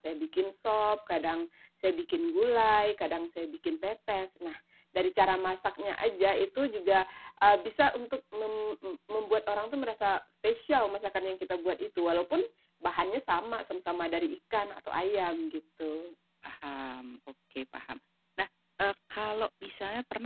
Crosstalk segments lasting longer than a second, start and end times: none

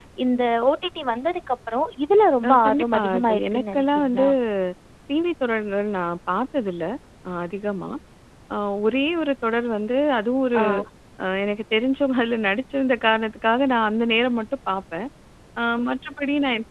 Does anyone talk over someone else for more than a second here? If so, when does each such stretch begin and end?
2.5-4.2

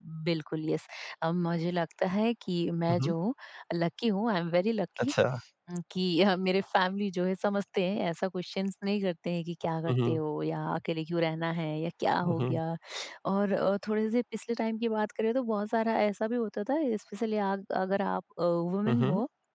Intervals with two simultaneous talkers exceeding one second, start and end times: none

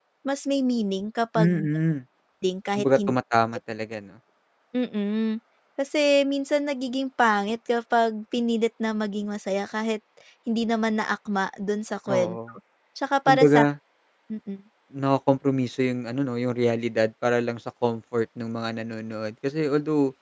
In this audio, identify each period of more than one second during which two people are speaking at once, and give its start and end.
none

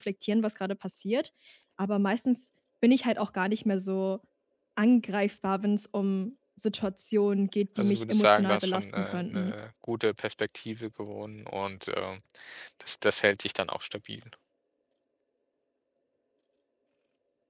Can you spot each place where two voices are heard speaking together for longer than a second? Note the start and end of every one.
7.8-9.5

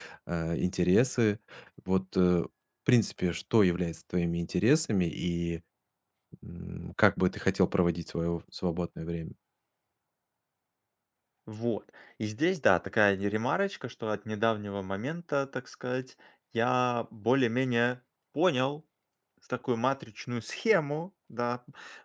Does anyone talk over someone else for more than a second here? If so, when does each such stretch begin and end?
none

